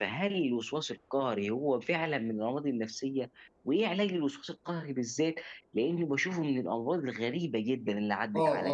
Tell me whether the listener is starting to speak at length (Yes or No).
Yes